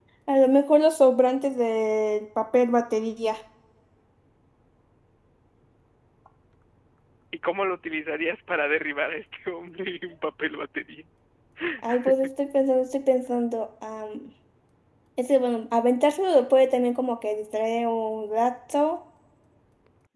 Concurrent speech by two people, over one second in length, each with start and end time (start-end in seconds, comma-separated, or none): none